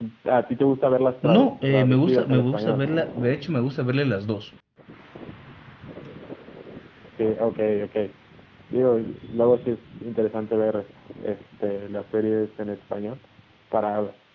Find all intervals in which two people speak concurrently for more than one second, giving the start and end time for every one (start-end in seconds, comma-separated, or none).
1.2-2.8